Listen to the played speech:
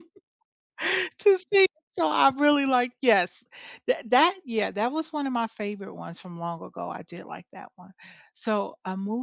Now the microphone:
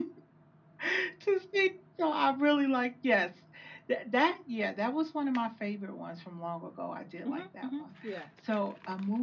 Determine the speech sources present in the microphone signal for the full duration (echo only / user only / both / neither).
both